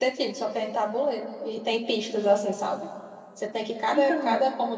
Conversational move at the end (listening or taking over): listening